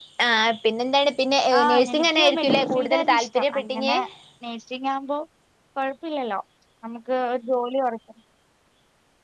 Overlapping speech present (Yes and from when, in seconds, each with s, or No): Yes, from 1.5 s